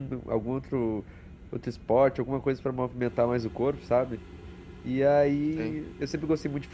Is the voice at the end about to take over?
No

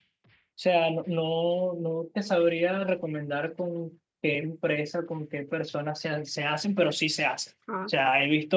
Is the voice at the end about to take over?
No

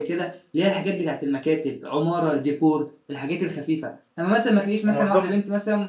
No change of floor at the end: Yes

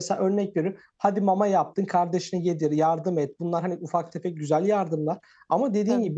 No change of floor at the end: Yes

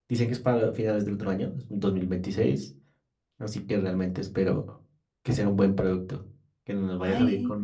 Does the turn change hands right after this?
No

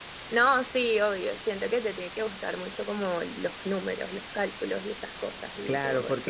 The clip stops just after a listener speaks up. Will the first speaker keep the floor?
No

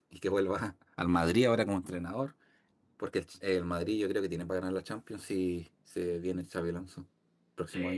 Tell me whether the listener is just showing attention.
No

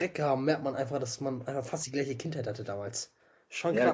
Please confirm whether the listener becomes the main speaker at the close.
Yes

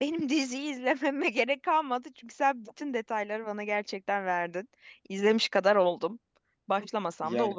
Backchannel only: No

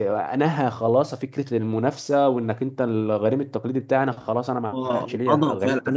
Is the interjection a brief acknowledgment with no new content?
No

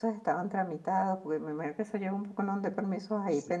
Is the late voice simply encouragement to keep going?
No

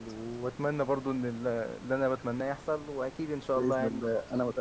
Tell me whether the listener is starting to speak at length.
Yes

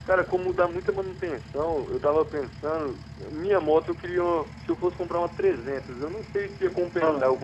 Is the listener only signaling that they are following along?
Yes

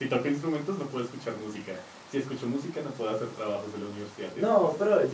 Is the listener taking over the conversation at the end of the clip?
Yes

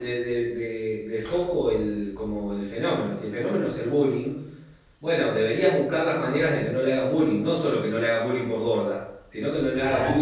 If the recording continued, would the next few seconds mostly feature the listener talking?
No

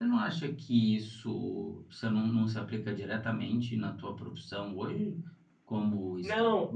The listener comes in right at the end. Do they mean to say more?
No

